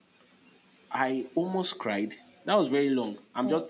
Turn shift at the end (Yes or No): No